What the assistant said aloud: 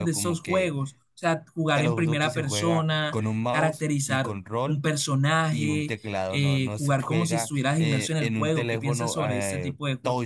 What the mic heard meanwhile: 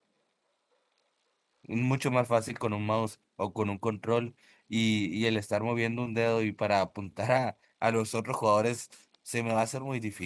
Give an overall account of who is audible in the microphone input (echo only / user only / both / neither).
user only